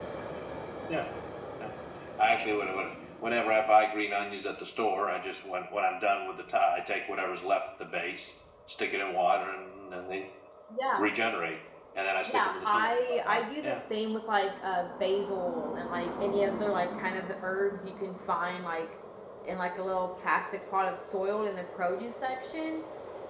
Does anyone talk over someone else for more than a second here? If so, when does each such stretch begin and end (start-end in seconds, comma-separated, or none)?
12.3-13.8